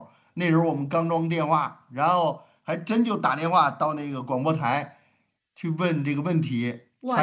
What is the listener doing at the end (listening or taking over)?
taking over